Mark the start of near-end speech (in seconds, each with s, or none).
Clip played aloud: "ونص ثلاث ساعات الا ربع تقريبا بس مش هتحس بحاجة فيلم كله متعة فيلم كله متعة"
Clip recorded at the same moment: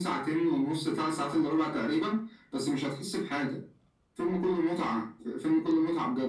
none